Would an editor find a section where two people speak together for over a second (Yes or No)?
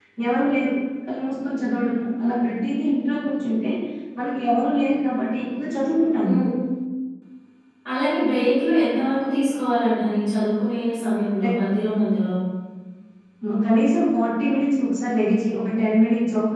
No